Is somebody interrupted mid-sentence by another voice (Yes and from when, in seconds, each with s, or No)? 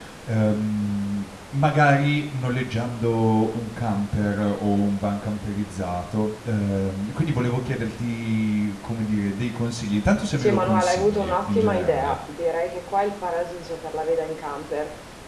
Yes, from 10.4 s